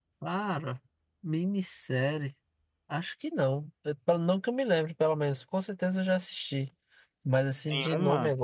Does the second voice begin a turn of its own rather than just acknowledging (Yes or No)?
Yes